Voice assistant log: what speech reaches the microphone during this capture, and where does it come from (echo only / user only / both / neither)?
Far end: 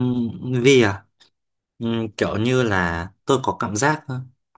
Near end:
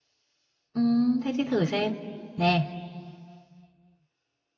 user only